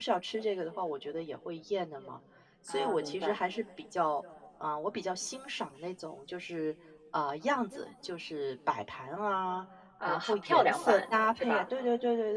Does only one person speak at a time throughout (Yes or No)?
No